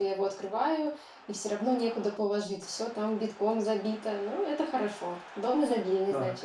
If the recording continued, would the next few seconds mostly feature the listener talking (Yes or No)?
Yes